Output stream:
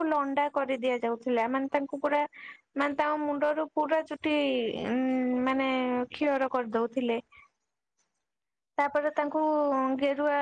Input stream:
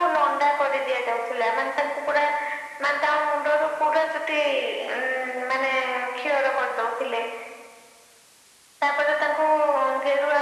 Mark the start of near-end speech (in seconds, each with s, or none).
none